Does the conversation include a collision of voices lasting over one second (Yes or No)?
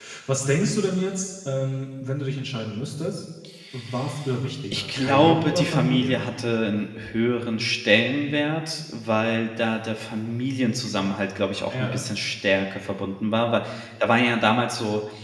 Yes